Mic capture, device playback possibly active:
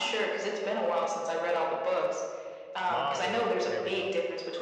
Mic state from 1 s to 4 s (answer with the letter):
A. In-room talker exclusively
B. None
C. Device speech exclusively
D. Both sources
D